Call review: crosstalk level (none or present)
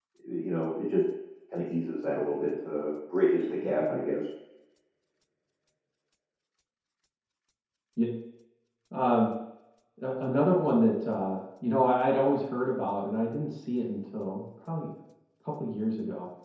none